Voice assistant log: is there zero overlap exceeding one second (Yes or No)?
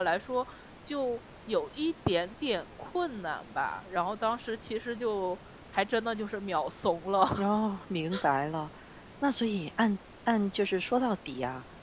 Yes